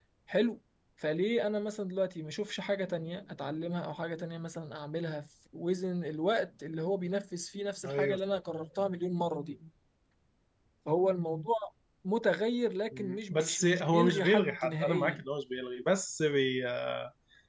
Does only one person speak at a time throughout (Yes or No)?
No